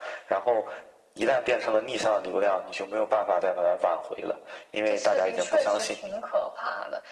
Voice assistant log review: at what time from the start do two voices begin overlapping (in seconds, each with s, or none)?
4.9 s